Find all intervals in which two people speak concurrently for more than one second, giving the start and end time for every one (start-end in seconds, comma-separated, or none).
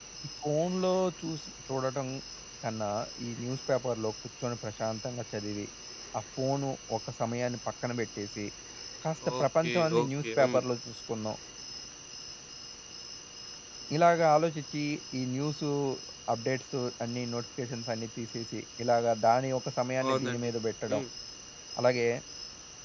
9.4-10.6